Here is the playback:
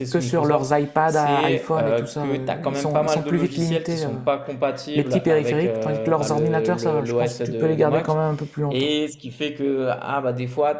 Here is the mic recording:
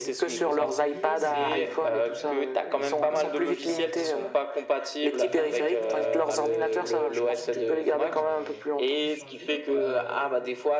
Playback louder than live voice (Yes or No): Yes